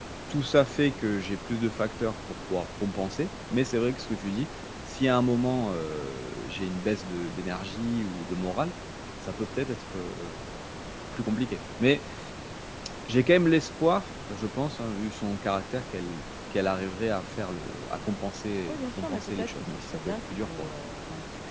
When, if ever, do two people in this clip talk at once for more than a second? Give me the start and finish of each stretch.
18.7-20.7

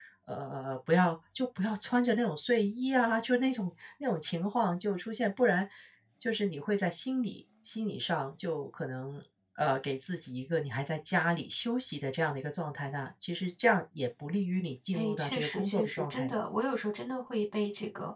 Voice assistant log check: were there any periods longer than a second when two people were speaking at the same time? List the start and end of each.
14.9-16.4

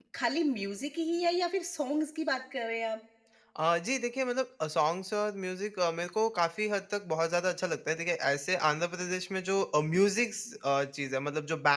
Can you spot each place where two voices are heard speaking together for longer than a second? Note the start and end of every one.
none

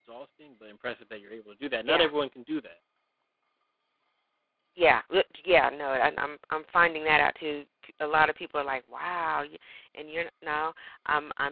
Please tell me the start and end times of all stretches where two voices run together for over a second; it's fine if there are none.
none

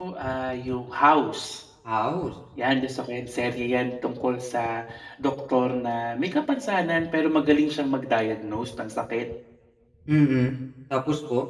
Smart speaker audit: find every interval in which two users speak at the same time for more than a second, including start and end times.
none

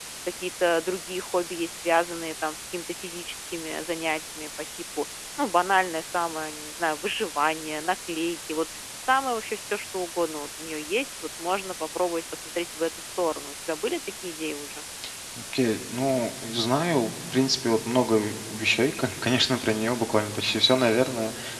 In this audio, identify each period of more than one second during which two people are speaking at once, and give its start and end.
none

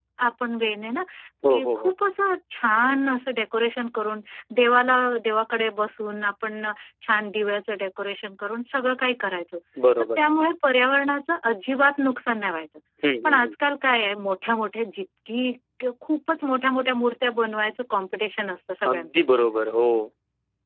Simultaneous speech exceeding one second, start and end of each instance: none

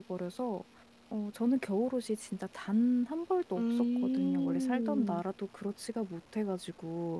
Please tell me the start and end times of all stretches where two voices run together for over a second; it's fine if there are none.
3.6-5.2

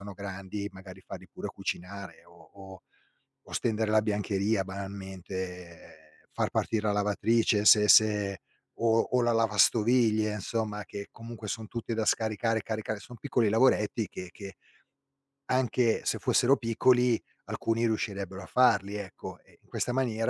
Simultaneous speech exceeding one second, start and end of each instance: none

